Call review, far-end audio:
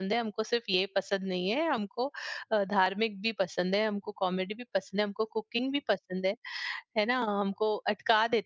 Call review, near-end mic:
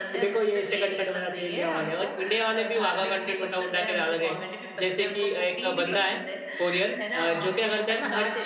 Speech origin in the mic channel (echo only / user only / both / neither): both